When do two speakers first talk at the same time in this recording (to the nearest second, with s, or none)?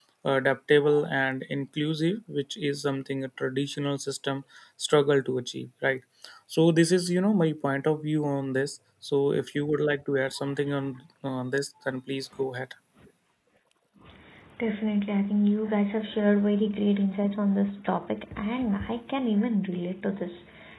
none